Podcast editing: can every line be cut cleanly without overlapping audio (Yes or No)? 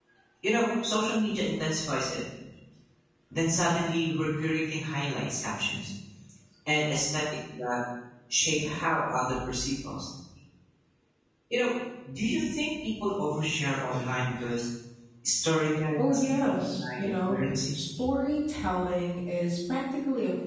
No